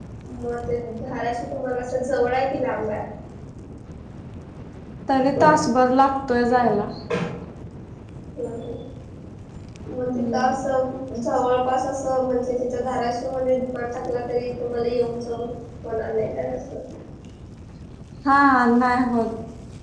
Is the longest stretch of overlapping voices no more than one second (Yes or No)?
Yes